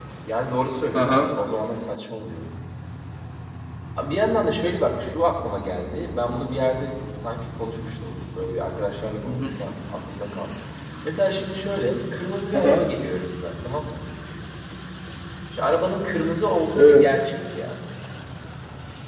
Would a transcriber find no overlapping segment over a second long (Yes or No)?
Yes